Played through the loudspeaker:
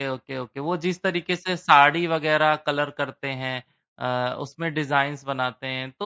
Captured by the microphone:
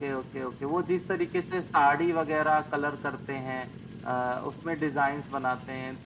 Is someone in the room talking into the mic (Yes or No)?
No